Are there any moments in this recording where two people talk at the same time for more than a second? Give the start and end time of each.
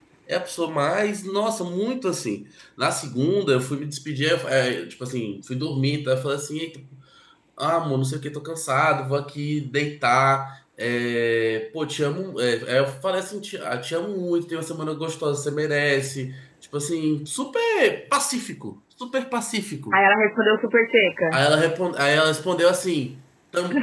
none

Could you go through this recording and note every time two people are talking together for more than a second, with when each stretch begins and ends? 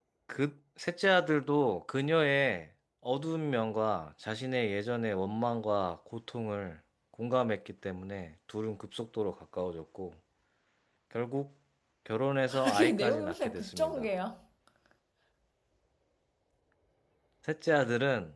12.6-14.1

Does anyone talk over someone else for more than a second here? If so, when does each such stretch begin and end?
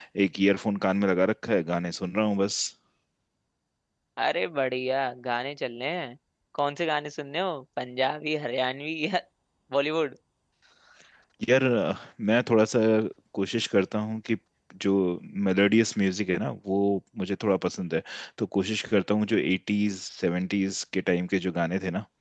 none

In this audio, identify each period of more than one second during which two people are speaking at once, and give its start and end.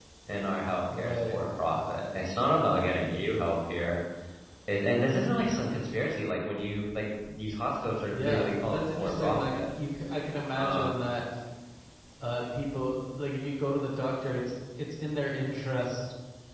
8.1-9.6

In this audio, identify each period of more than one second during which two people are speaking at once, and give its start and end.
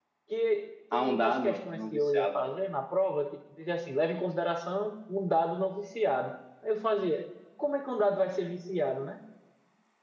0.9-2.4

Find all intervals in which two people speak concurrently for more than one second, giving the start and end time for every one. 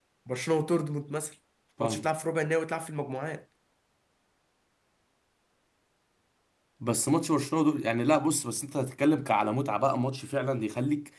none

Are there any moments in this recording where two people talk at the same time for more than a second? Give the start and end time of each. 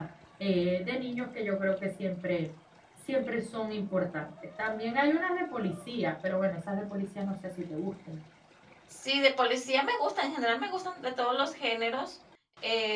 none

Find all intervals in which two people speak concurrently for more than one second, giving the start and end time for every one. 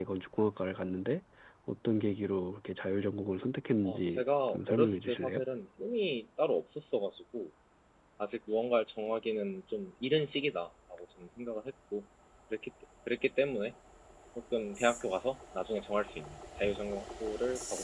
3.8-5.4

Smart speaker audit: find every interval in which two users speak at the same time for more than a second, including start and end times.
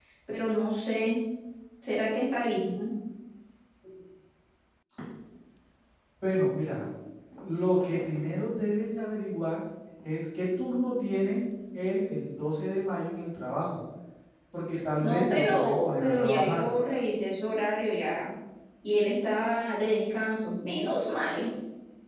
15.0-16.7

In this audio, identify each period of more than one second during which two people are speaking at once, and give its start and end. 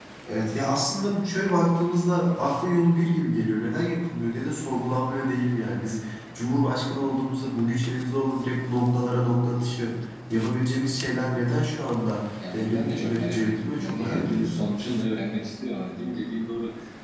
12.5-14.6

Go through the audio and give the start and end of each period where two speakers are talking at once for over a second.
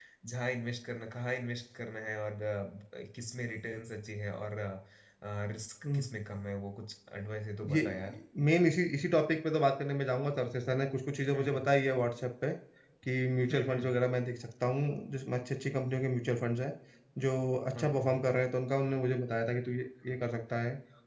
none

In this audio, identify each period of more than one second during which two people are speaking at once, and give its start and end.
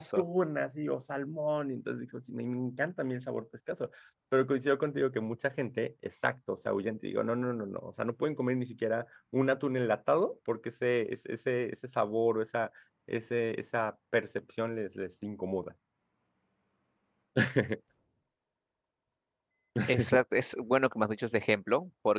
none

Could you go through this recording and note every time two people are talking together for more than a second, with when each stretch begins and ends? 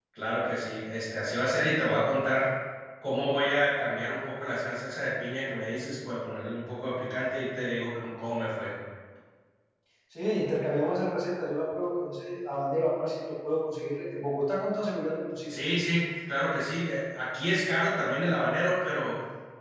none

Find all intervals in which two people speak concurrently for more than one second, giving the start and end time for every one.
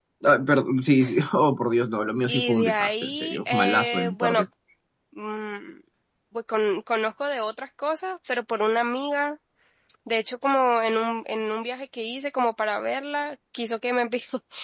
2.3-4.4

